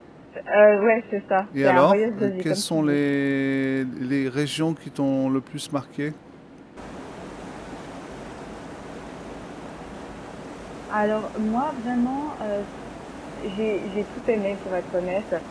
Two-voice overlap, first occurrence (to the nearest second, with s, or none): 2 s